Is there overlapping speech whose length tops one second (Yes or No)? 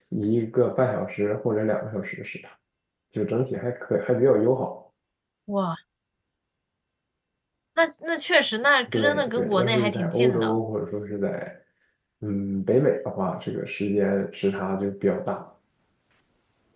Yes